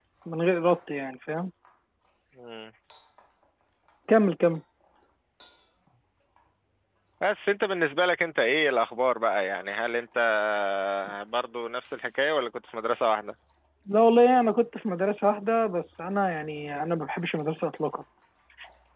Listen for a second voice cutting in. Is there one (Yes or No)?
No